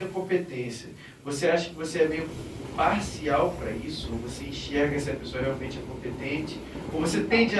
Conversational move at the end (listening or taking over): listening